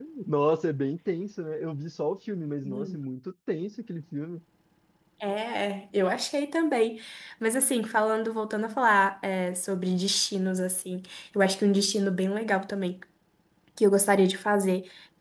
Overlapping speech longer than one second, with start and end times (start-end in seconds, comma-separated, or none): none